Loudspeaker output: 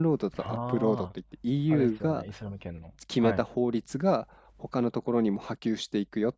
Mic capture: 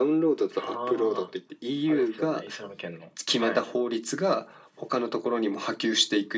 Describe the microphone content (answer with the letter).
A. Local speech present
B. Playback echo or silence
B